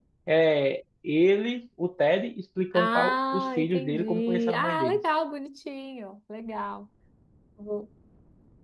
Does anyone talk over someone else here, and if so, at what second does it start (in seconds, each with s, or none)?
2.7 s